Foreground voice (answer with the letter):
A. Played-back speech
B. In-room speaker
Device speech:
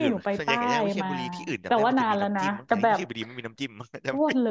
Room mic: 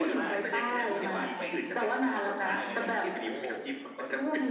A